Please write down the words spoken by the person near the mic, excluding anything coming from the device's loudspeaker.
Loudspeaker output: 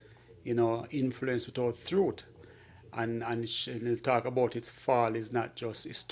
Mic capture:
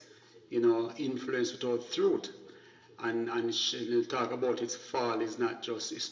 none

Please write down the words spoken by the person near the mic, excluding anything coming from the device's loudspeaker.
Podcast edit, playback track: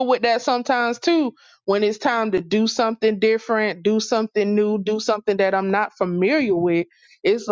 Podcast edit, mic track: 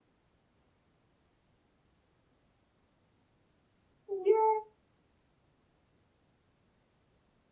Yeah.

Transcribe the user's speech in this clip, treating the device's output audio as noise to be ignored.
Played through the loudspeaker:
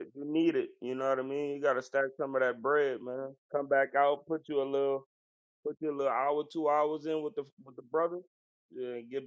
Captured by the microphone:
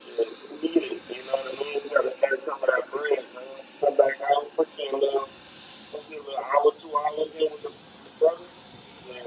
none

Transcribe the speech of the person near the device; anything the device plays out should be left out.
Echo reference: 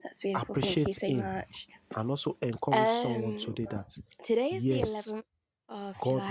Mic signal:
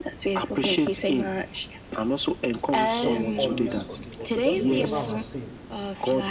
God always forgive us. He doesn't remember our sin

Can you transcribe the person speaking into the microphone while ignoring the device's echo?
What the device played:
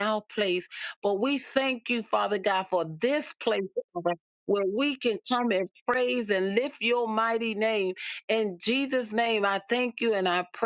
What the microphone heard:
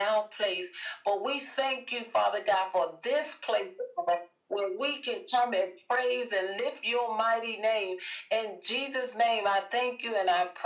none

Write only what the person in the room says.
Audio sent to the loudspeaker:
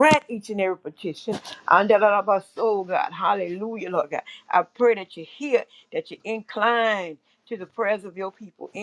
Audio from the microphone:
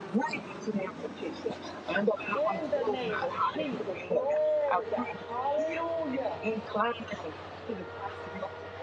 In the name of Jesus. Glory, God. Hallelujah.

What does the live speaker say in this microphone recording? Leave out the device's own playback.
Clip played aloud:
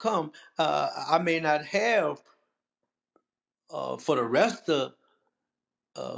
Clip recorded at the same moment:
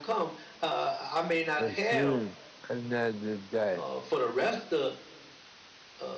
for seeing another day.

